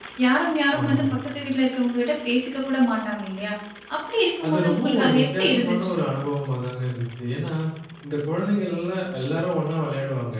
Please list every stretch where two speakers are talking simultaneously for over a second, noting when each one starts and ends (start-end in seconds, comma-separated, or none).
4.4-6.0